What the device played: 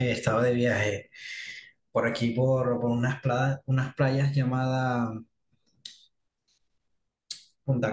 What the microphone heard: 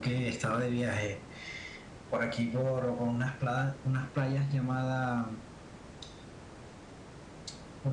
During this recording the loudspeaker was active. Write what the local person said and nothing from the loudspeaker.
none

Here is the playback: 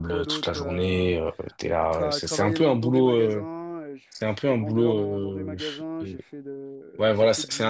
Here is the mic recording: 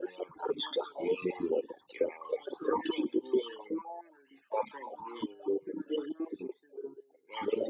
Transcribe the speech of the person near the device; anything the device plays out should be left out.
none

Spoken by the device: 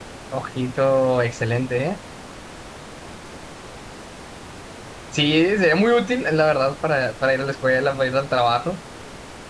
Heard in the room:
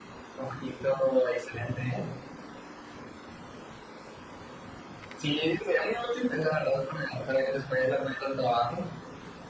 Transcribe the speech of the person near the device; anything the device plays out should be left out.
none

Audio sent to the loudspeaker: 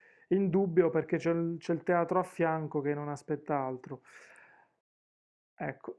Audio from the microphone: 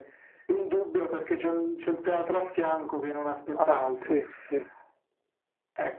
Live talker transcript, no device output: Ah, sì, sì,

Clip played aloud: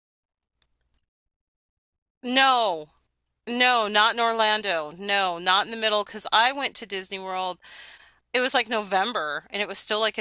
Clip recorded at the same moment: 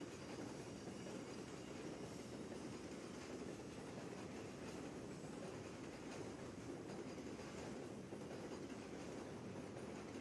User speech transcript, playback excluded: none

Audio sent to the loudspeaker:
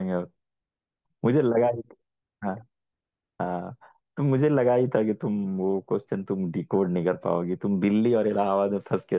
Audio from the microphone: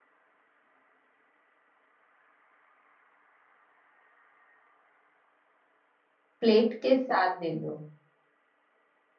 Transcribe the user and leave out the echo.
प्लेट के साथ दे दो

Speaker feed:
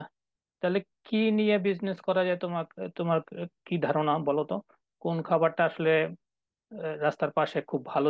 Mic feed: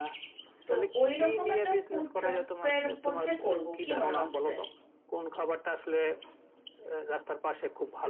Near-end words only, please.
তো ওই রকম একটা ফুড ট্রাকের মধ্যে করব কি মনে হচ্ছে

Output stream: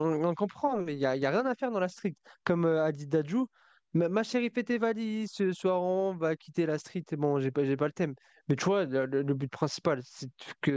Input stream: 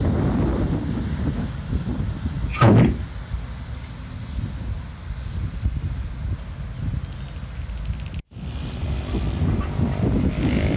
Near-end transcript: J'oublie.

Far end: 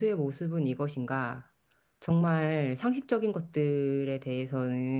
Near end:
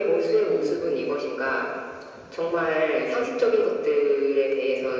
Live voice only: 음,

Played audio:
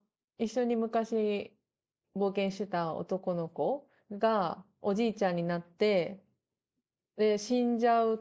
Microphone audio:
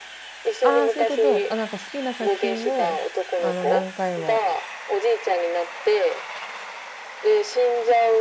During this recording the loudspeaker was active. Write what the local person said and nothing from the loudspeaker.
ああ、そういうこと。あ、なんか好きな作品を、あの、何回も

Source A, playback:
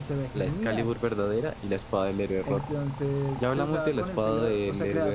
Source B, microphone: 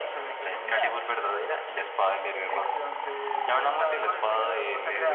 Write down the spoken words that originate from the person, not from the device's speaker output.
none

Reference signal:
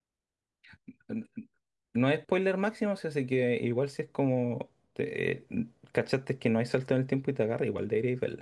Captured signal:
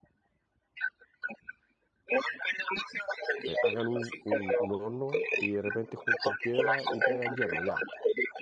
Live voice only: eh, hagan un, un, un horno y de repente junten piedra y te hagan hierro, ya,

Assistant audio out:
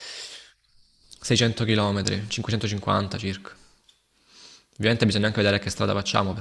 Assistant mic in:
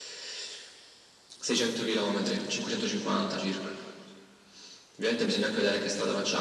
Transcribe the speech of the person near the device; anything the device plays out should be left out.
none

